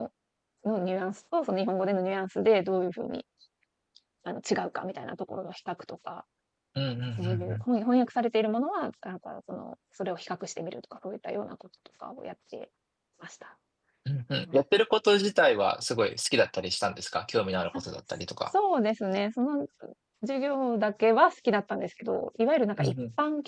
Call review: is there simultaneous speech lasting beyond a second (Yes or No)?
No